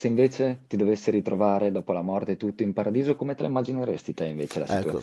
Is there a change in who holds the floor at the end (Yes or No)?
Yes